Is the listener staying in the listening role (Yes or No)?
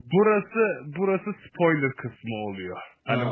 Yes